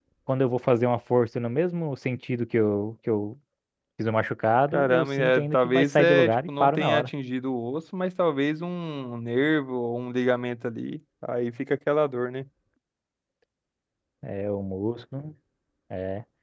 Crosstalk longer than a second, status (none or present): present